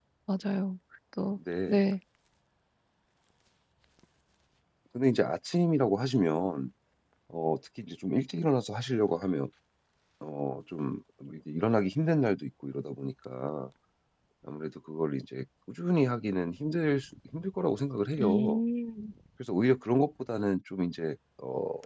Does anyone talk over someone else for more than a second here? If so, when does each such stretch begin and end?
none

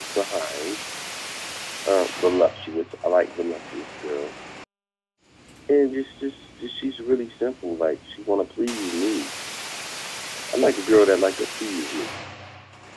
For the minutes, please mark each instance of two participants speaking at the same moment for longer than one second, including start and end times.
none

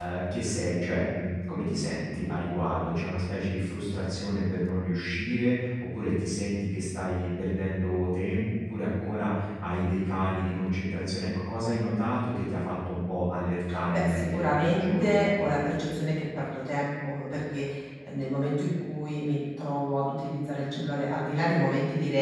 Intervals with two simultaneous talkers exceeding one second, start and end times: 13.9-15.3

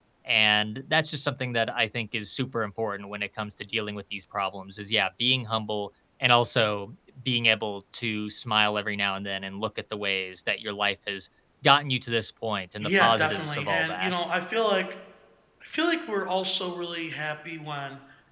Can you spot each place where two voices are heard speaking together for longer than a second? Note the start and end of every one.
12.8-14.1

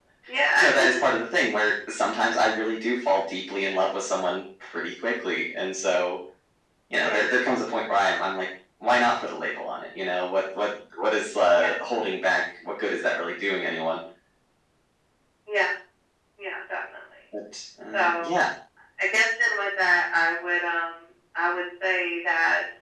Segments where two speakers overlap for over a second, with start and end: none

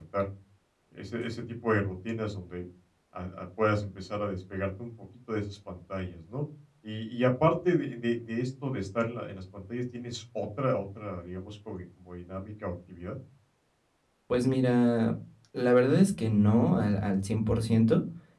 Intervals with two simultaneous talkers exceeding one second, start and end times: none

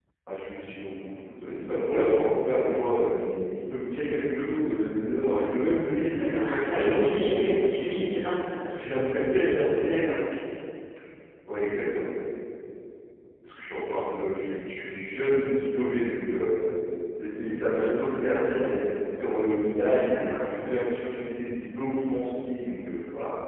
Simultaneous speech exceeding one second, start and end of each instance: 6.2-8.1

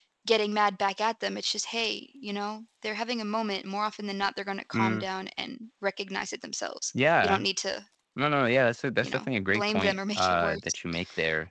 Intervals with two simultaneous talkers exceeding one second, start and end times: 9.0-10.8

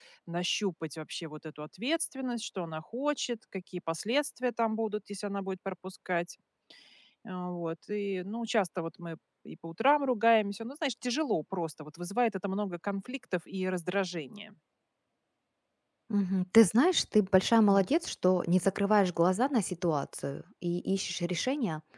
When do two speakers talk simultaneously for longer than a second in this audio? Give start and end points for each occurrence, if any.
none

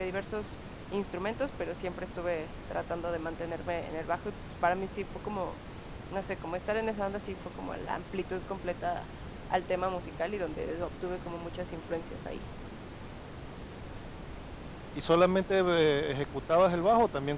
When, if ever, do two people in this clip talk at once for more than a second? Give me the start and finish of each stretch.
none

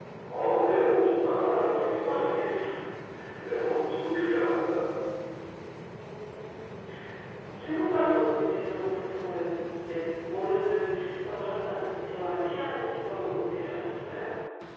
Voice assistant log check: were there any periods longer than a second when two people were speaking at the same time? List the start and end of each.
0.8-2.5

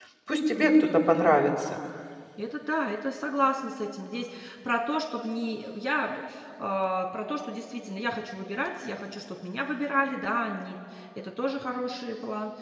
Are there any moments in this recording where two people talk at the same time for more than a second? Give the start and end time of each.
none

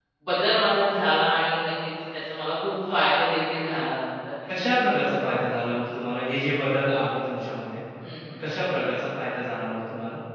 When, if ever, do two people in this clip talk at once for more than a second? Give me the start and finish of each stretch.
none

